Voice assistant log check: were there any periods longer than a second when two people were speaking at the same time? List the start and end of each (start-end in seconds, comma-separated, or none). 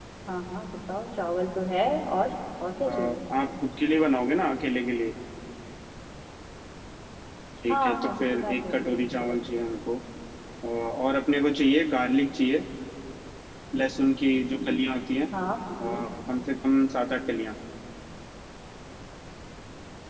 7.7-9.3